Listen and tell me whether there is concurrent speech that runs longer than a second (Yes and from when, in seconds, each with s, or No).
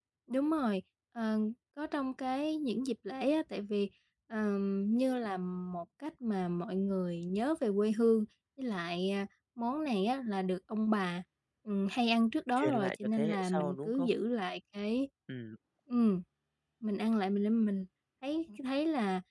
Yes, from 12.6 s